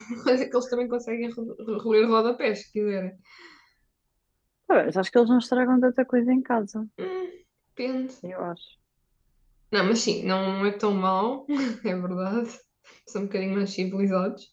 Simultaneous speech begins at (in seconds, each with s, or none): none